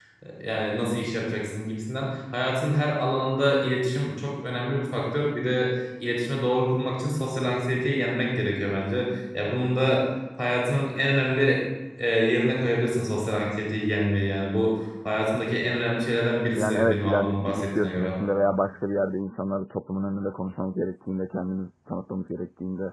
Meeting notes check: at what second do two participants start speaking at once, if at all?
16.6 s

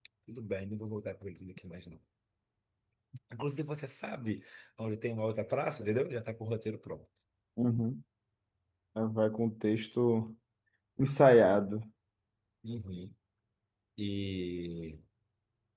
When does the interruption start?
none

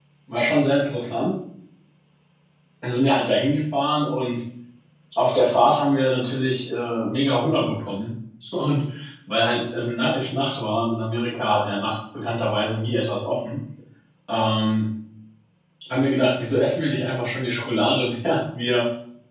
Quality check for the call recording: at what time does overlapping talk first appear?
none

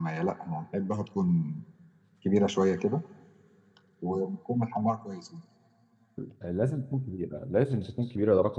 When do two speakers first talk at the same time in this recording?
none

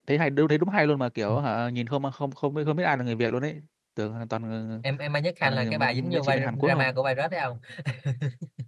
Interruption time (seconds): 5.4 s

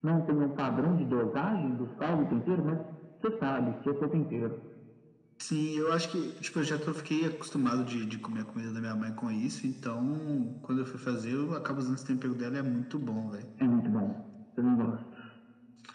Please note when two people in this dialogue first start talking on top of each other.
none

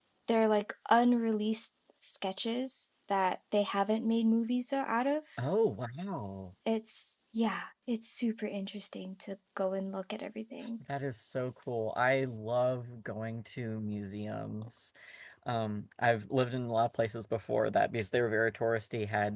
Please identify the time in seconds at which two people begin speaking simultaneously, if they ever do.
none

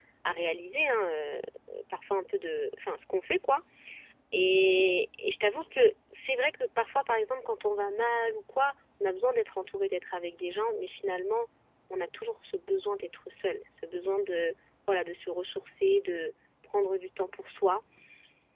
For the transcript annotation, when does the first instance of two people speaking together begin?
none

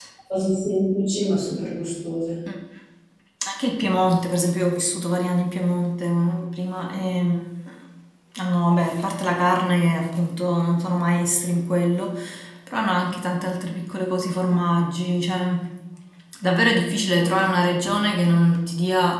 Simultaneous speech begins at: none

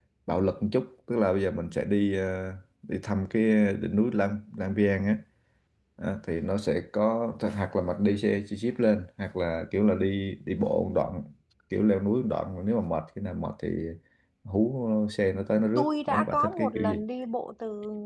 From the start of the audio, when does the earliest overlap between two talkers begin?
15.8 s

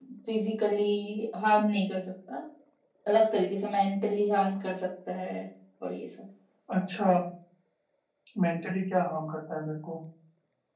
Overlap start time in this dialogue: none

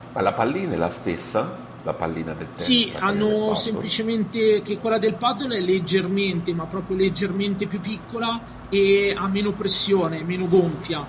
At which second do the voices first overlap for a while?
2.6 s

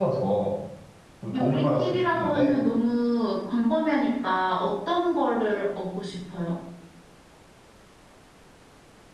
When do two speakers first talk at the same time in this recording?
1.3 s

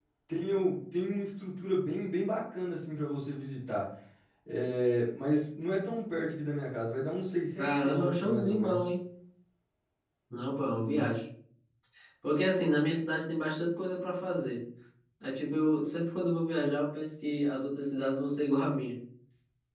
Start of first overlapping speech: 7.6 s

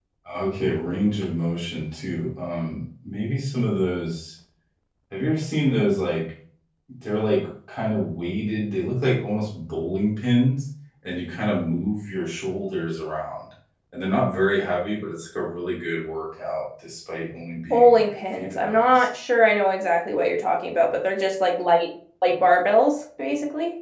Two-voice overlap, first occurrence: 17.7 s

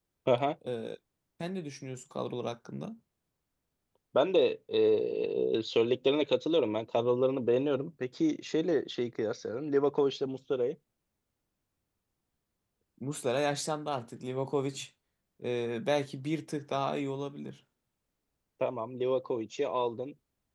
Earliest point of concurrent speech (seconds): none

